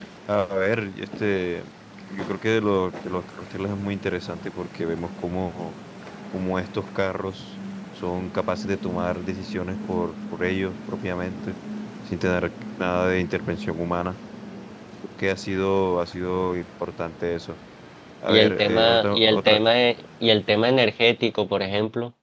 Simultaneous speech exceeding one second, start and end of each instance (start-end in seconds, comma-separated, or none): 18.3-19.6